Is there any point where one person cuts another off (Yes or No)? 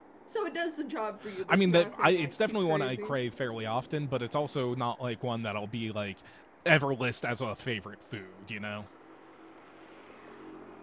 Yes